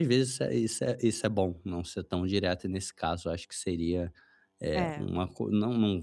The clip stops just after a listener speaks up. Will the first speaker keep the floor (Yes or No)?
Yes